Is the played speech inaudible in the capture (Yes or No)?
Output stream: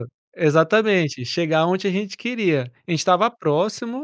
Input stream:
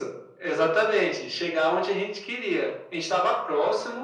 No